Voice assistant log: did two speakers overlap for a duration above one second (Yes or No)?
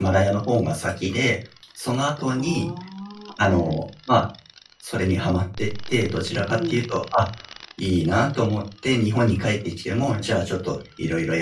No